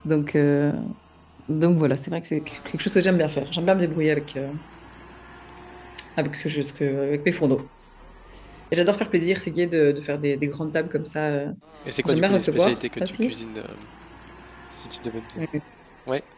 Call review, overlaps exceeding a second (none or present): present